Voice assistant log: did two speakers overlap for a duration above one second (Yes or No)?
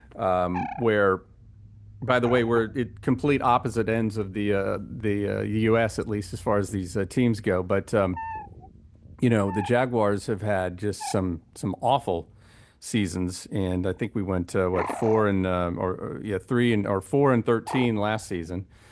No